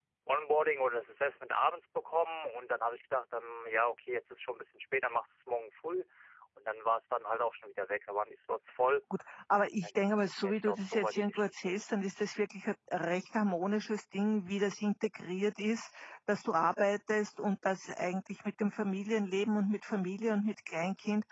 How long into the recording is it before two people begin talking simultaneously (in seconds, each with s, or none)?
9.7 s